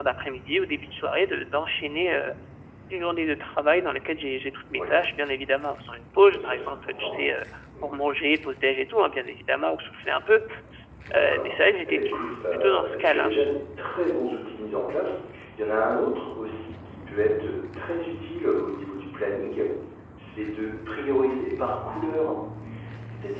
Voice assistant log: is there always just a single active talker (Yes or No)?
No